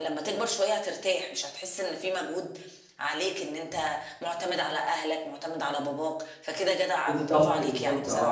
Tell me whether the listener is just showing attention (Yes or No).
No